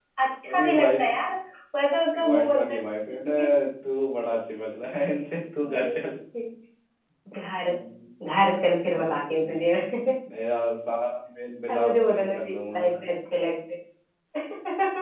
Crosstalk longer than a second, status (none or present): present